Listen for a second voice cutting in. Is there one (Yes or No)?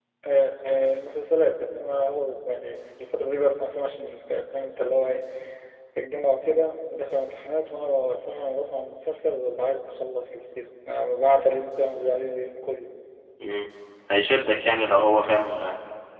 No